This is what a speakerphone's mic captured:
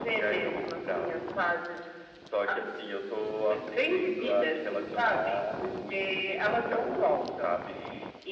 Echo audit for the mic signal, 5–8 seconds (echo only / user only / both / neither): echo only